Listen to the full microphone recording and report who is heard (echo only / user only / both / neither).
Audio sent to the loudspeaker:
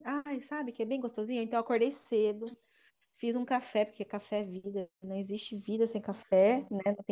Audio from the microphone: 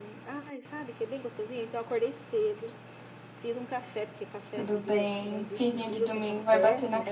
both